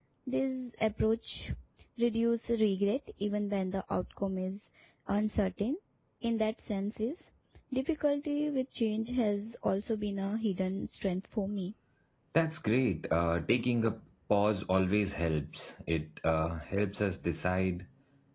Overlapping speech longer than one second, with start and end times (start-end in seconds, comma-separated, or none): none